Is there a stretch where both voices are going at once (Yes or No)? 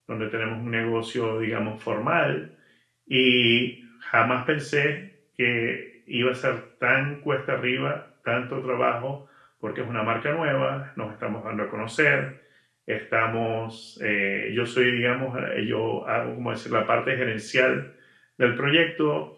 No